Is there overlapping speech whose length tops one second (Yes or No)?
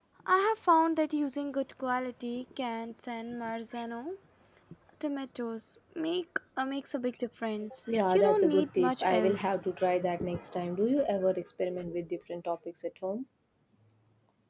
Yes